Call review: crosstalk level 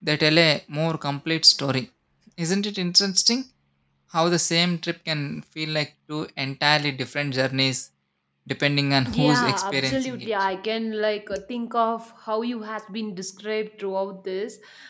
present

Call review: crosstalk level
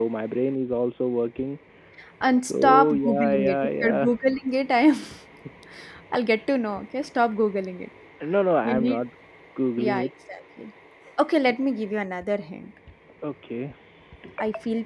present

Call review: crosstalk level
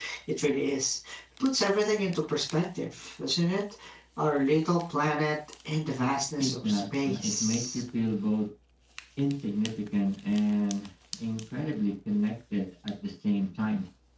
present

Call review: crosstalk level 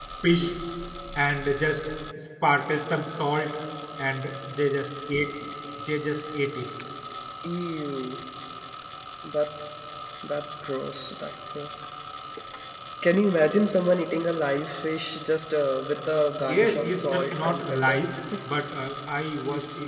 present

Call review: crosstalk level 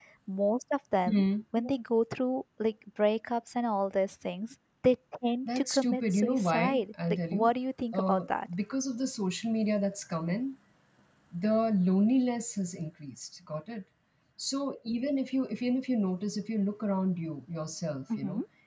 present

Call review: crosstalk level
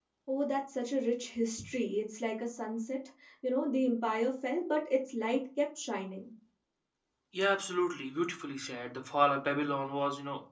none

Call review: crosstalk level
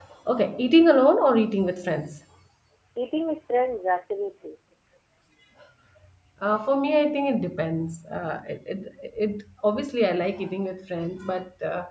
none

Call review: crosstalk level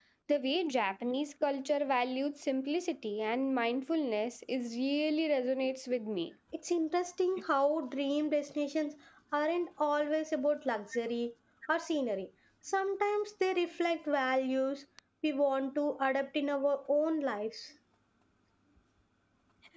none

